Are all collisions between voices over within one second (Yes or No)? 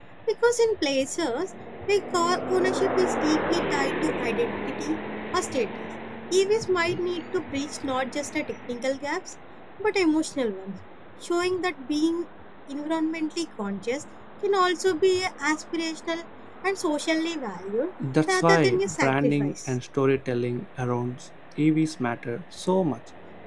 No